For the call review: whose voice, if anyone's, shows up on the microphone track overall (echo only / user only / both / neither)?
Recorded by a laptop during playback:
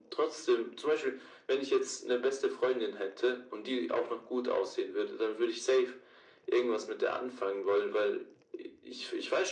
echo only